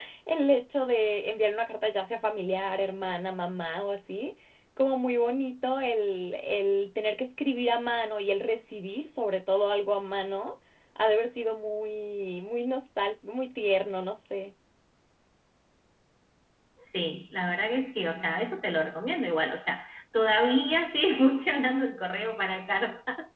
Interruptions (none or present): none